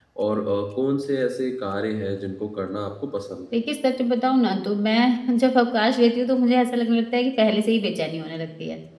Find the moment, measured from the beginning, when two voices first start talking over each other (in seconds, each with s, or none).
none